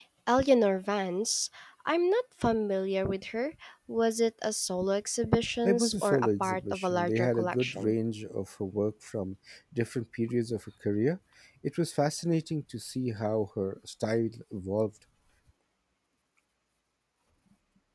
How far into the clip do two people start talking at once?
5.6 s

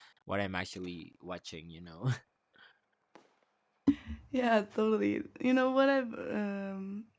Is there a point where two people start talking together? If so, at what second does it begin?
none

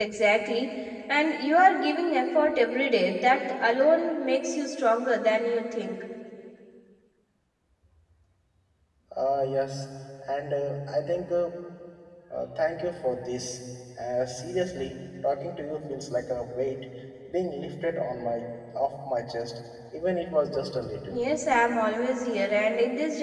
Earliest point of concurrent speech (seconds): none

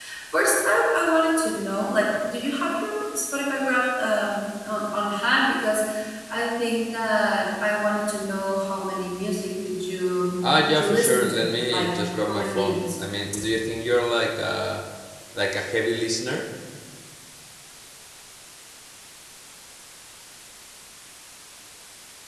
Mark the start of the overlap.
10.4 s

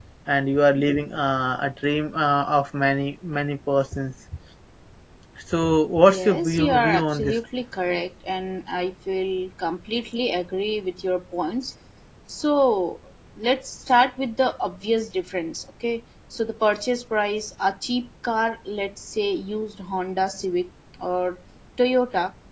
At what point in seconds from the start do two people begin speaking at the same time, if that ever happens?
6.1 s

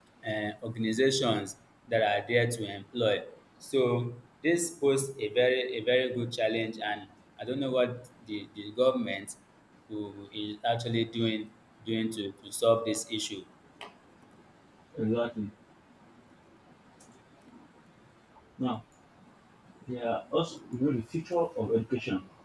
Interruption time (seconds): none

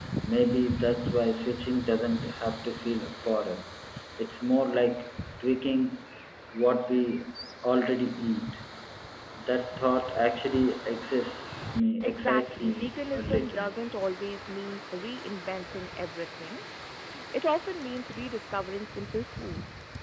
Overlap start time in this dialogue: 12.0 s

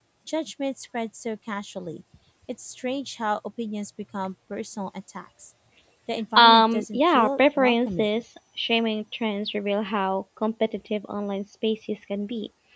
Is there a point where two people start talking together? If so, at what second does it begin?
6.4 s

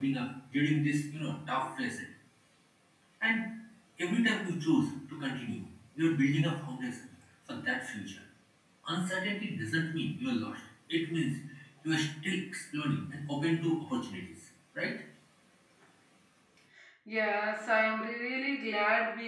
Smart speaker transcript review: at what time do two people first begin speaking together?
none

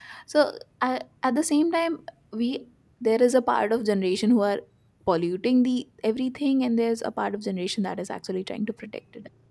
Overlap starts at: none

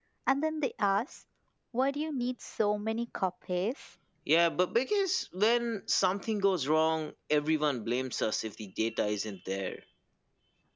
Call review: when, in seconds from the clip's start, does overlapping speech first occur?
none

